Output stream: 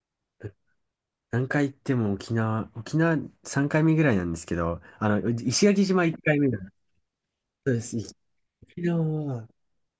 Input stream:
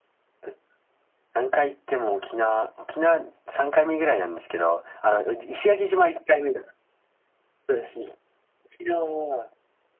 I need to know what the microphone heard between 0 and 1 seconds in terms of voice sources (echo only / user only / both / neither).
neither